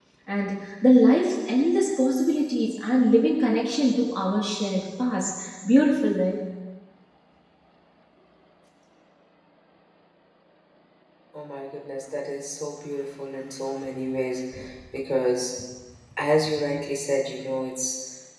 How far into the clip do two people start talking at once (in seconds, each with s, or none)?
none